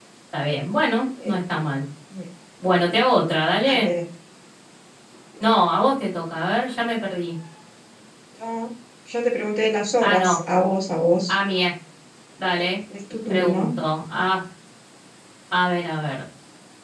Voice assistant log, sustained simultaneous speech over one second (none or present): none